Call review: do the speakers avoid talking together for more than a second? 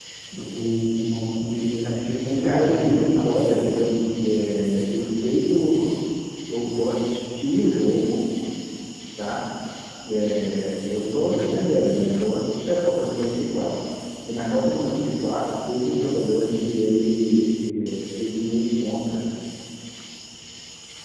No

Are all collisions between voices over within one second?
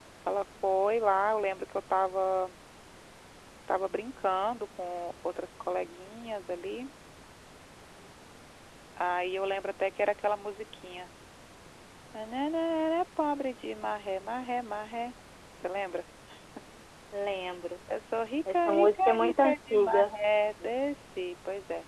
No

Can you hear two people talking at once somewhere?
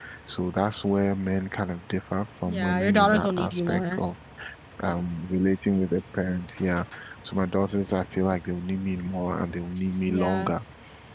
Yes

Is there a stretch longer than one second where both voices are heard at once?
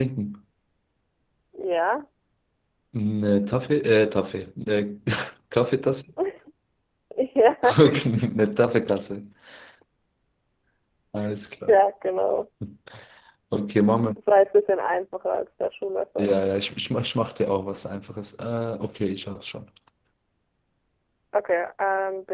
No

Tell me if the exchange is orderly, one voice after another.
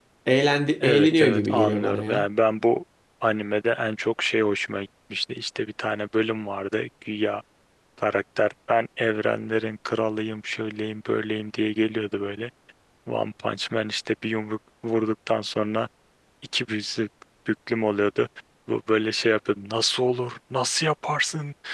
No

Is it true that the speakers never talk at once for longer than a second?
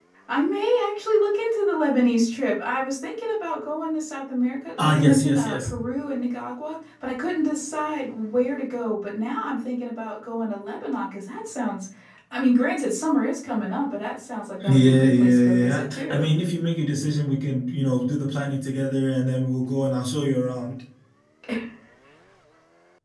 No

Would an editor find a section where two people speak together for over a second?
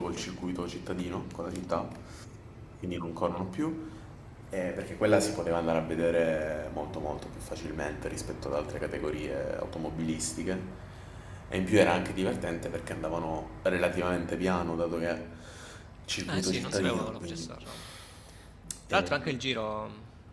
Yes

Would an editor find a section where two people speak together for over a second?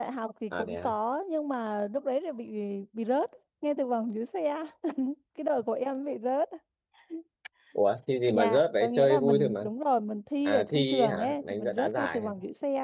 Yes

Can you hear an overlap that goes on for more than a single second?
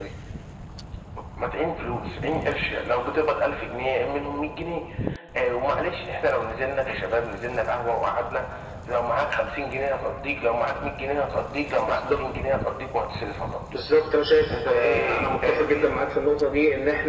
Yes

